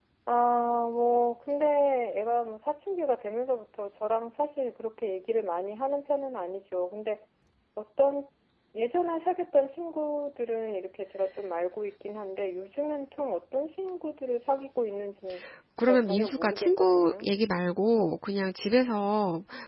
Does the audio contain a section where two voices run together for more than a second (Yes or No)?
Yes